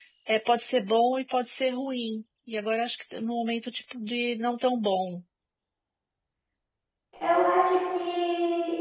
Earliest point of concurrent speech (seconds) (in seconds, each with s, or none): none